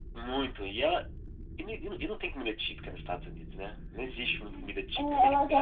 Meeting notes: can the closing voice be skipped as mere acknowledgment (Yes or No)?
No